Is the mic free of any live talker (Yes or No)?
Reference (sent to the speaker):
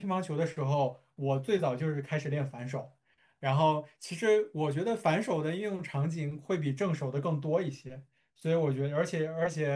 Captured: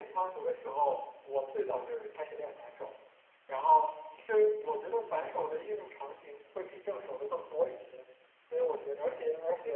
Yes